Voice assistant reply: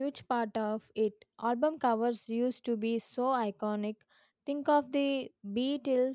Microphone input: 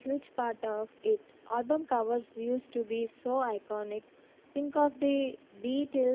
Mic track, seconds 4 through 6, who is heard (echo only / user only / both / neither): echo only